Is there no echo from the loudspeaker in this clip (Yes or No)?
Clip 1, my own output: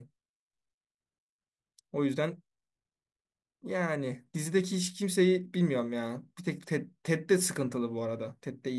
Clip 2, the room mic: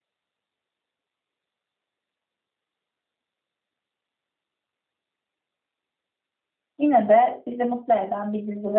Yes